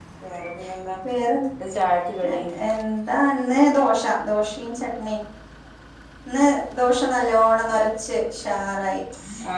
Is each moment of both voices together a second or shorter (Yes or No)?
Yes